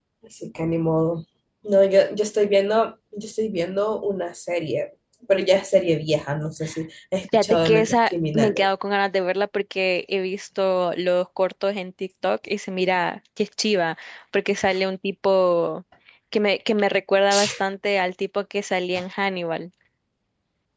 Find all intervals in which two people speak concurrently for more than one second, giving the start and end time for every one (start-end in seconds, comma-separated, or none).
7.3-8.7